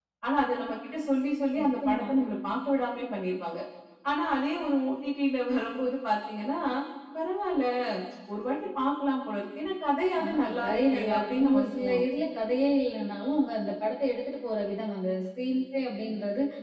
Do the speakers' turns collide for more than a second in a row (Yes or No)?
Yes